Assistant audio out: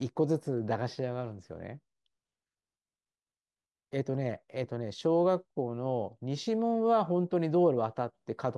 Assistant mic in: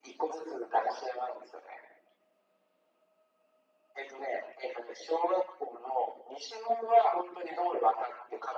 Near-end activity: none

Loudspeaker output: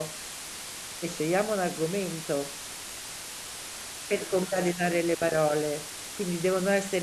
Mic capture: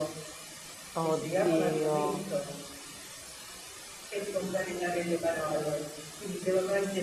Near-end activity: present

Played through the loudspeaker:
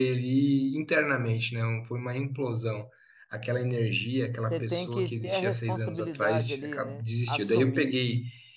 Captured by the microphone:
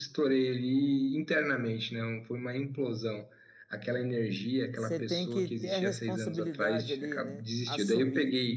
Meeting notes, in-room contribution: none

